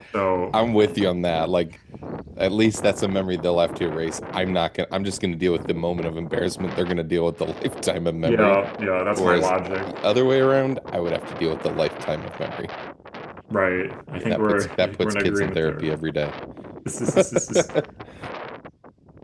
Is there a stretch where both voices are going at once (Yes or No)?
Yes